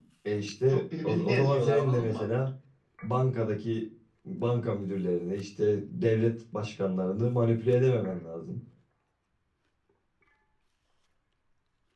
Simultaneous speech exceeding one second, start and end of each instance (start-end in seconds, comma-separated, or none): 0.7-2.2